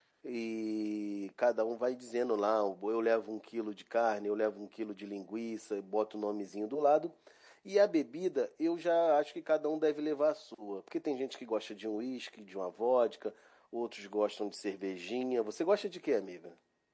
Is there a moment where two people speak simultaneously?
No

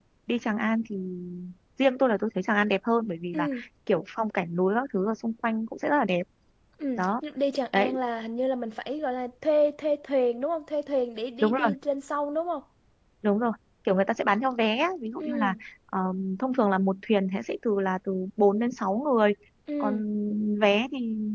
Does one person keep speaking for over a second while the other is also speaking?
No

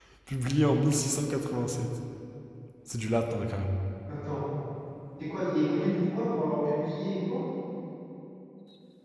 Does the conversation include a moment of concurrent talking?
No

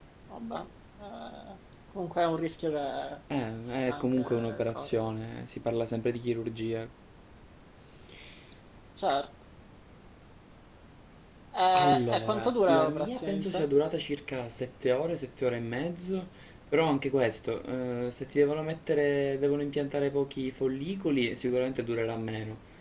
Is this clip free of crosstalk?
No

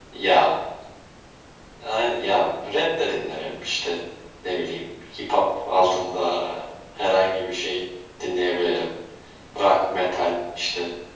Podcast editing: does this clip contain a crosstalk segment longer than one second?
No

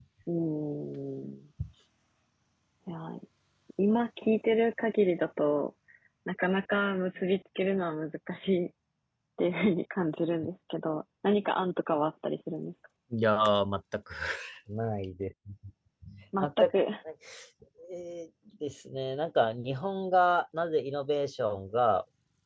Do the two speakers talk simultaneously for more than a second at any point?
No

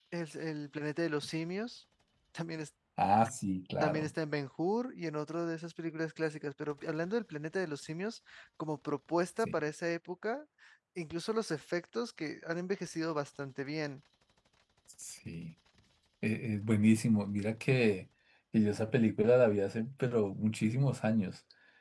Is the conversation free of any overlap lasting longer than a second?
Yes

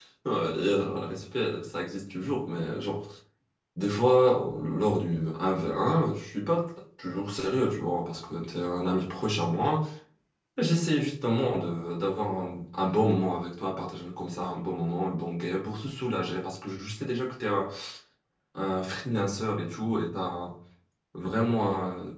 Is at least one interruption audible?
No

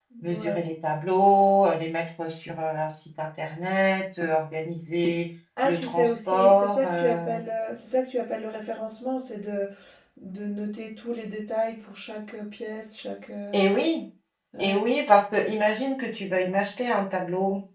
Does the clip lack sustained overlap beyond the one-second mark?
No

